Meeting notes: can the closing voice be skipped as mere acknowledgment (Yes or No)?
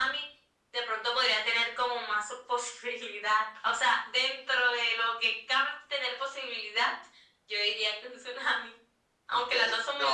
No